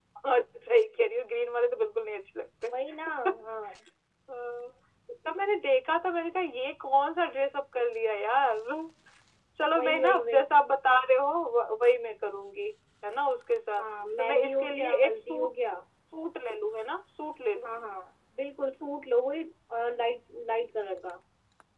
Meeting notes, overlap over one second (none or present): present